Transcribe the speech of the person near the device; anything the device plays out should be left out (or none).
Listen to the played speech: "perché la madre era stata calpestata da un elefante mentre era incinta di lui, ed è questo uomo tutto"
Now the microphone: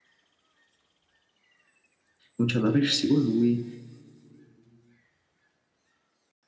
comincia ad aprirsi con lui